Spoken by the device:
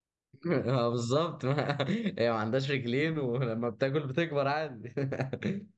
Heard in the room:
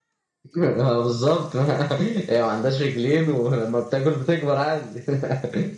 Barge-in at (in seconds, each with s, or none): none